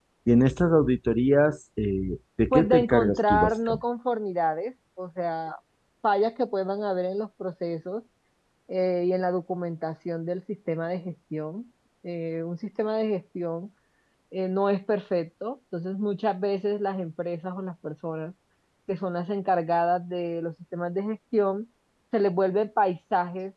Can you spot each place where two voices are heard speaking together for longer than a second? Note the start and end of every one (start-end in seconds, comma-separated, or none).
2.5-3.8